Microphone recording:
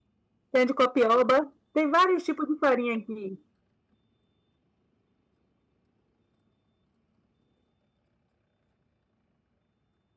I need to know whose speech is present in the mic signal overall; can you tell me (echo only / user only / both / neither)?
user only